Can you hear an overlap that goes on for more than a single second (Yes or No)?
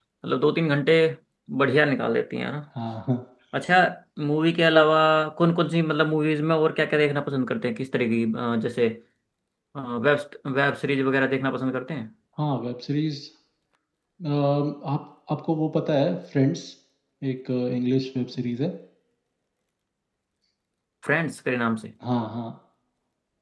No